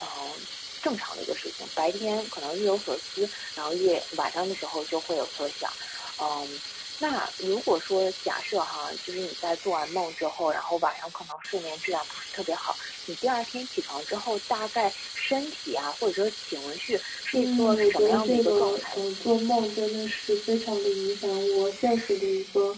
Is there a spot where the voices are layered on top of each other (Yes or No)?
Yes